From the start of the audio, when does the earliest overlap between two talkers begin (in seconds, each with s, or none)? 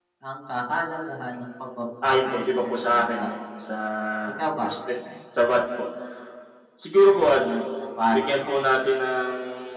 2.0 s